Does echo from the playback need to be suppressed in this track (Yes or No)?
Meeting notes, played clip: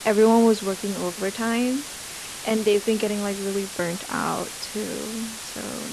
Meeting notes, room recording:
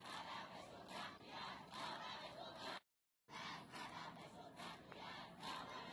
No